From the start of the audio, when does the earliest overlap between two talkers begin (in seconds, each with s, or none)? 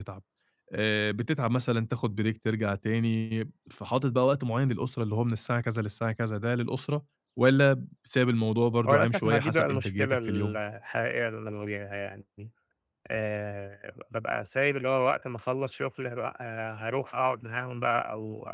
8.8 s